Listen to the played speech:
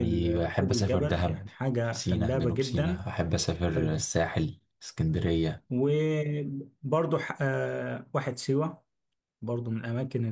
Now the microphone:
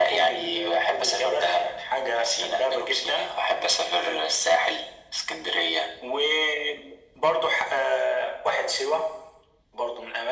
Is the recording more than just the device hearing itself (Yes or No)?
No